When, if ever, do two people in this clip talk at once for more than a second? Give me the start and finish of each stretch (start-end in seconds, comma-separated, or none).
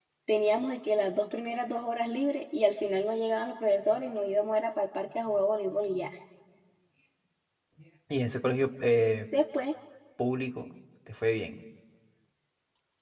none